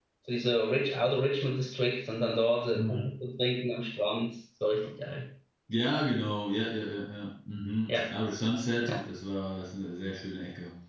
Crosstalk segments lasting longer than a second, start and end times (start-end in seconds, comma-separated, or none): none